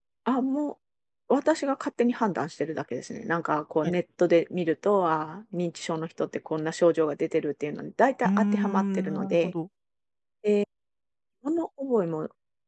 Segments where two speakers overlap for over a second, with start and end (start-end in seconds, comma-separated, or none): 8.2-9.5